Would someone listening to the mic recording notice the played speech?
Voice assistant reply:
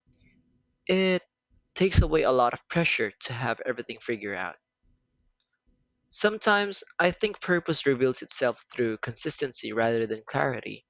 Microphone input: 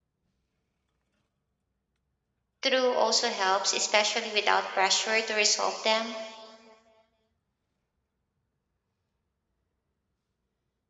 No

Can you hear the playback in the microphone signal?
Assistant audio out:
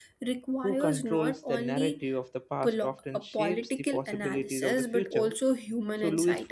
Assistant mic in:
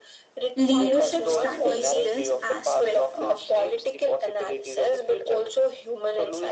Yes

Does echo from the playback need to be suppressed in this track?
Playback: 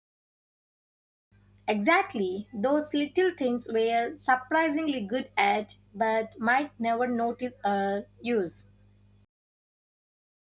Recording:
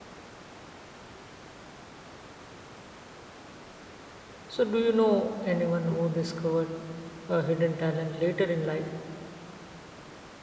No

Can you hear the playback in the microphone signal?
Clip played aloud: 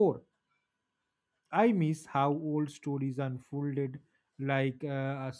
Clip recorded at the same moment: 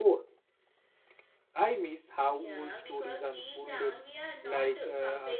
Yes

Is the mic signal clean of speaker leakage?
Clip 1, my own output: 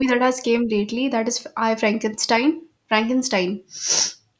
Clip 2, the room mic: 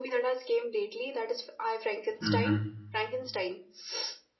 No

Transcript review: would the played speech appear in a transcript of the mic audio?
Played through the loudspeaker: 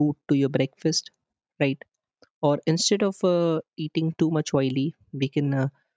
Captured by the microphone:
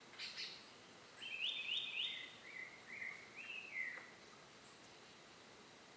No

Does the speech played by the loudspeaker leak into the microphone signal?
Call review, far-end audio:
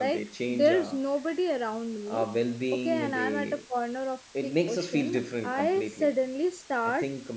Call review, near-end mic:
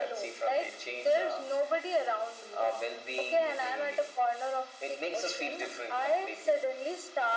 Yes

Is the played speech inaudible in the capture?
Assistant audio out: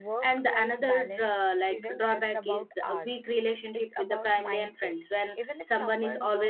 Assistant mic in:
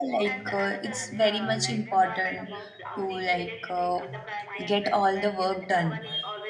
No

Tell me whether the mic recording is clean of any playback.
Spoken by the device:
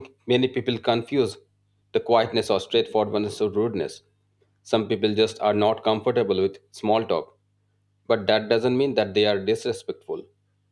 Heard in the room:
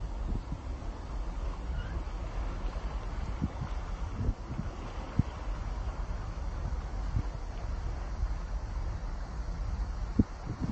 Yes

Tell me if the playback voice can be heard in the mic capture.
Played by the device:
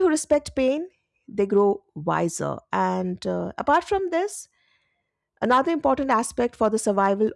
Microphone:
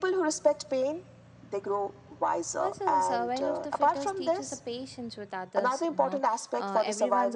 Yes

